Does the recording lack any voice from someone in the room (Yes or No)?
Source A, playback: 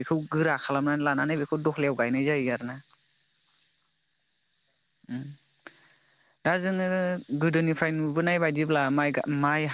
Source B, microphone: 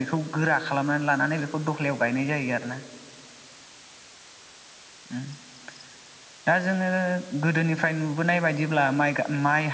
Yes